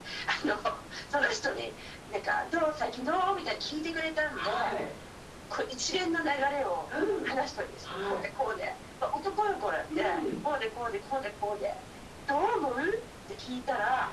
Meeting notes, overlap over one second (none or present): none